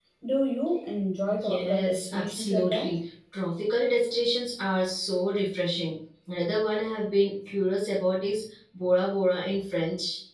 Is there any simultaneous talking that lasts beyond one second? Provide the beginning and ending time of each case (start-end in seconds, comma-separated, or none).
1.3-2.9